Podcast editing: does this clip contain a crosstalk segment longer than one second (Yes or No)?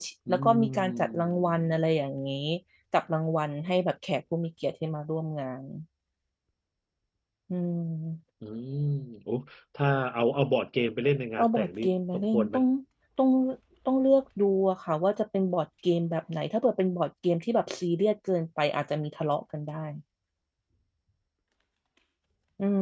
Yes